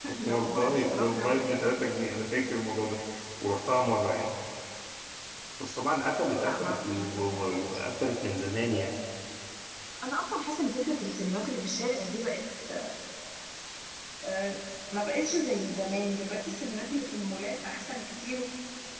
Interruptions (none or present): present